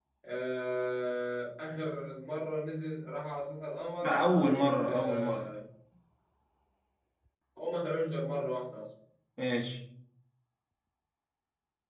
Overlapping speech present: Yes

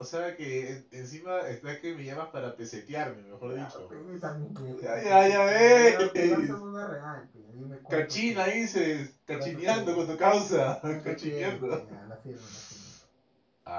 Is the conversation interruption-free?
No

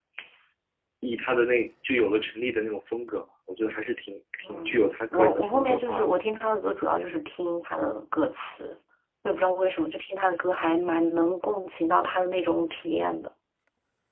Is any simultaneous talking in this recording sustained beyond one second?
Yes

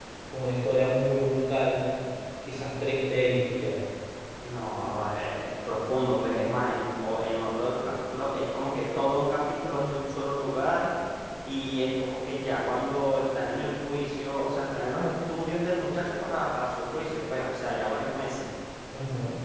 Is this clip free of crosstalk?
Yes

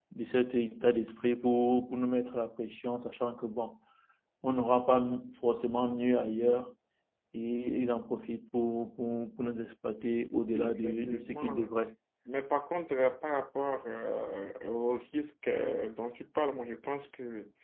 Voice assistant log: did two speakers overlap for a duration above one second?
Yes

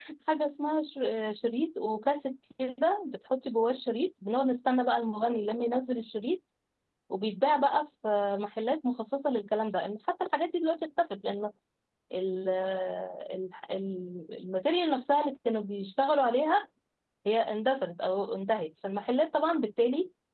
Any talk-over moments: No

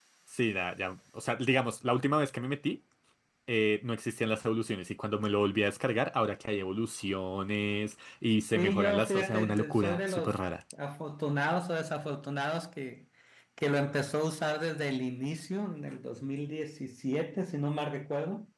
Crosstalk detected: Yes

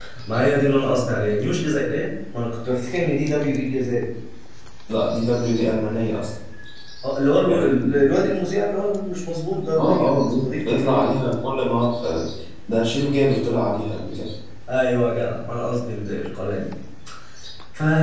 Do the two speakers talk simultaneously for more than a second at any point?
Yes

